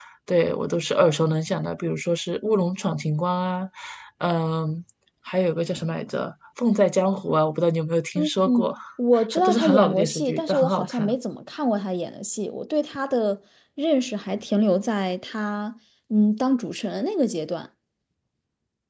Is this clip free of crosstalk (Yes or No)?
No